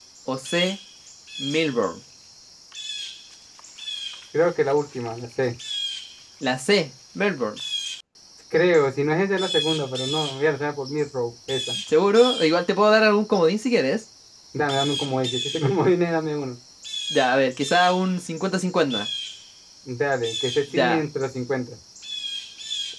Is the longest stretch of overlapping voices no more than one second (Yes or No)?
Yes